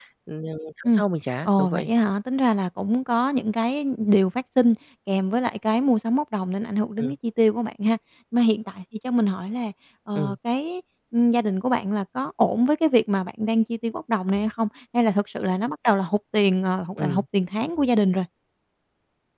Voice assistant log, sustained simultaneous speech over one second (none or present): none